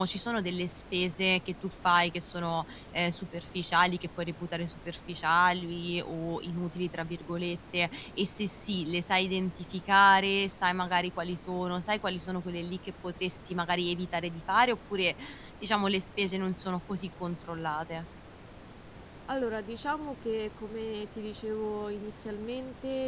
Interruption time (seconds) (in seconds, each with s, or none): none